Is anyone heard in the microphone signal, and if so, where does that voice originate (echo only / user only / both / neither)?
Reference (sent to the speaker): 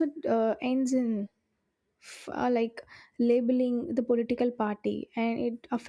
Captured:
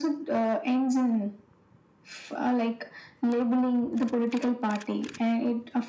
echo only